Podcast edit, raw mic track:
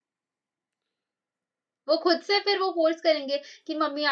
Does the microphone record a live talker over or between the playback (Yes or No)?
Yes